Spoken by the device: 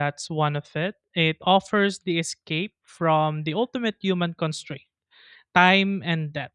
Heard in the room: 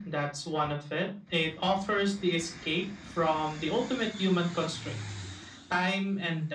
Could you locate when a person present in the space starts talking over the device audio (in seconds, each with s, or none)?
none